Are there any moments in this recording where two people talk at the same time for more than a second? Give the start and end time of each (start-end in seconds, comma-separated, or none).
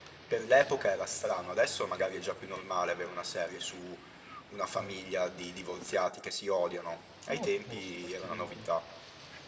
7.3-8.6